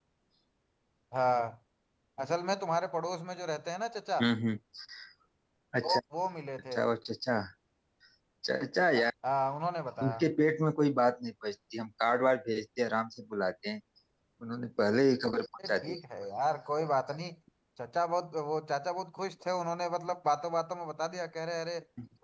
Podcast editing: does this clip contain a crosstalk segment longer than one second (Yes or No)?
No